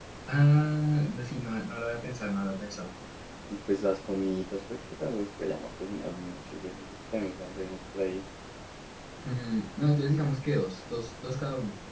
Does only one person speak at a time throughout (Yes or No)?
Yes